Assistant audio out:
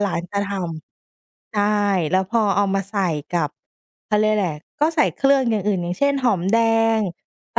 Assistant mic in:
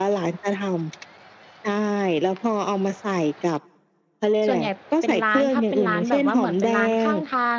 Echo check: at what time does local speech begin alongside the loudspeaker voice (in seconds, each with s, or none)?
4.5 s